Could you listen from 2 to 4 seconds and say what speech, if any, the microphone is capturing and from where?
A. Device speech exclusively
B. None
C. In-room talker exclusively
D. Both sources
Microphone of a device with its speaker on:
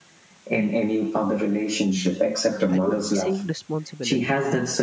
D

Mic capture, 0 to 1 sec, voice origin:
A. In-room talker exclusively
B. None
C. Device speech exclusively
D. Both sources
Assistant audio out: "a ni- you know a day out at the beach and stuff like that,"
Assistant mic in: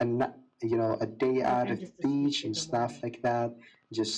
C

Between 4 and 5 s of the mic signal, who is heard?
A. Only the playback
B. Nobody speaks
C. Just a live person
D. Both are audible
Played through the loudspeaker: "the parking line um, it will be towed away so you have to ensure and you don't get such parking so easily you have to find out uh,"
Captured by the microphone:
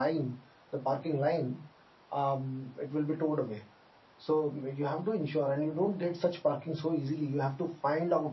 A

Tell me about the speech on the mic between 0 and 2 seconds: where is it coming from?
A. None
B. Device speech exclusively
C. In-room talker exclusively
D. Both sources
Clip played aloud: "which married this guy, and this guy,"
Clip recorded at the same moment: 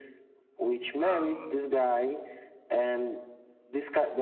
D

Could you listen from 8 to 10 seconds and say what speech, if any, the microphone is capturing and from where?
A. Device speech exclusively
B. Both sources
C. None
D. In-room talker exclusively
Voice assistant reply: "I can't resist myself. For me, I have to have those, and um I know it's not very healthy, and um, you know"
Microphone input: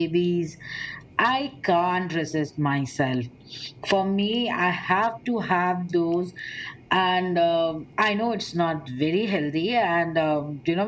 A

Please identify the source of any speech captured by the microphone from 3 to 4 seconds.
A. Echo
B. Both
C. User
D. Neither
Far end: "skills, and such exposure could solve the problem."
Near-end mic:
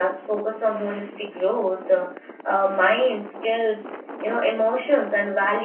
C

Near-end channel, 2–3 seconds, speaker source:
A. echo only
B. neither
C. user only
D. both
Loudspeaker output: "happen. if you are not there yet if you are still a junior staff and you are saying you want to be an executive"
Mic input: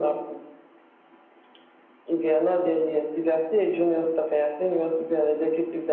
A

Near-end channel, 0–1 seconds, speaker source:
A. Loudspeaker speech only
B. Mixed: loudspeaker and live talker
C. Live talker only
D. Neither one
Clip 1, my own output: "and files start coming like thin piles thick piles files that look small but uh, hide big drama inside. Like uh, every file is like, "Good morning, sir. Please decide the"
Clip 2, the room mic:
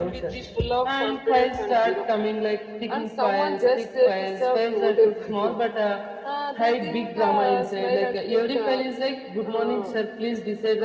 B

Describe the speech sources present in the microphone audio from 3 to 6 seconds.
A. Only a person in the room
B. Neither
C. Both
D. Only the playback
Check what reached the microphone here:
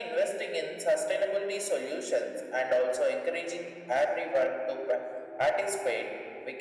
D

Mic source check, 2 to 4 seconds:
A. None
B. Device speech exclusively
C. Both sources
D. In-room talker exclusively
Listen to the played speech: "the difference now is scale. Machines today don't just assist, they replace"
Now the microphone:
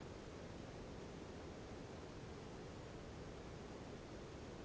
A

